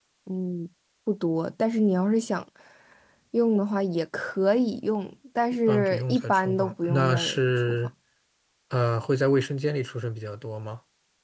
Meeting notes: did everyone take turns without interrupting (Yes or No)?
No